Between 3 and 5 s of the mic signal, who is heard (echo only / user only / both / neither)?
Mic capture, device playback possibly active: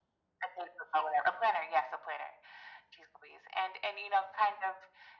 echo only